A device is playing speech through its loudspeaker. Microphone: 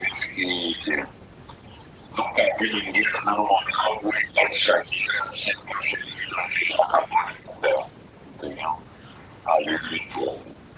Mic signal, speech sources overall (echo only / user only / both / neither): echo only